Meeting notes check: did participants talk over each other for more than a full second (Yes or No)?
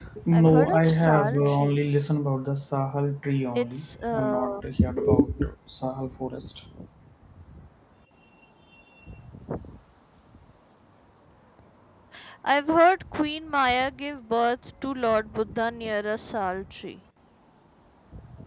Yes